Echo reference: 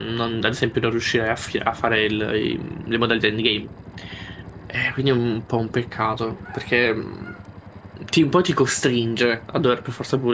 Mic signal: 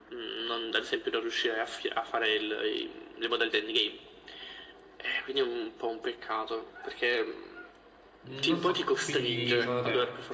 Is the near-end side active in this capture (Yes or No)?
Yes